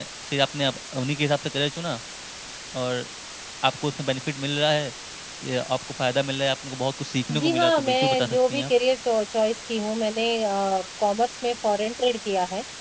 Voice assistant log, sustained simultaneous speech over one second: present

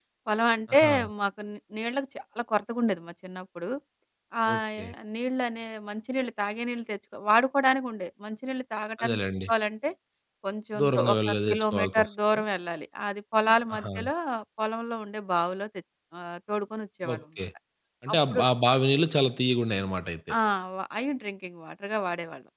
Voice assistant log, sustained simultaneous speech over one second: present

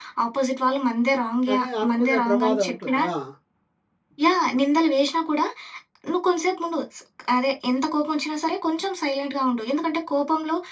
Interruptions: present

